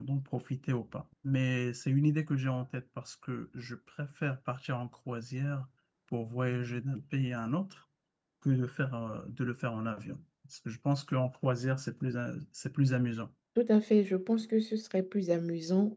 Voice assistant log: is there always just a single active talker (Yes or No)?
Yes